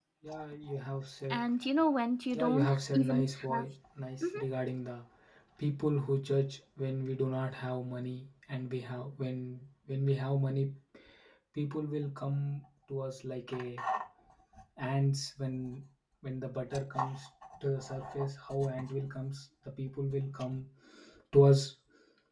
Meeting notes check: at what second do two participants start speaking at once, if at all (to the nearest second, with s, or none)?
2 s